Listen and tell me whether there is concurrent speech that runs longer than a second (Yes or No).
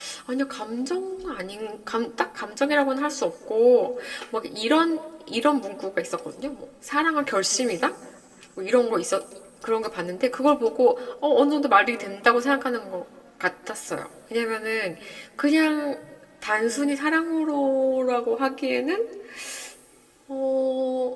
No